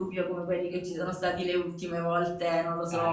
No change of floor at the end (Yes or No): Yes